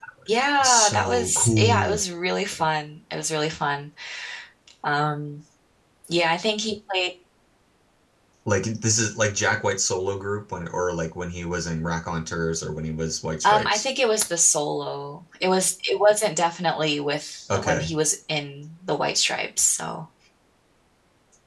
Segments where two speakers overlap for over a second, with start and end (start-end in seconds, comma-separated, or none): 0.6-2.0